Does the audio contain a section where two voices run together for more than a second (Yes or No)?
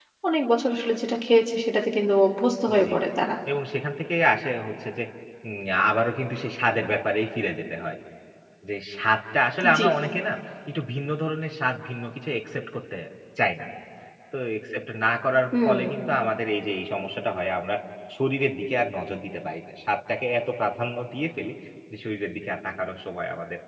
No